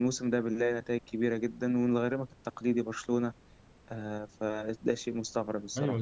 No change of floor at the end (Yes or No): No